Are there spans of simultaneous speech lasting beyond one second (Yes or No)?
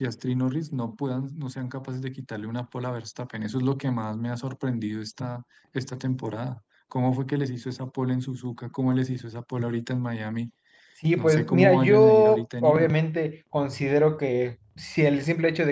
Yes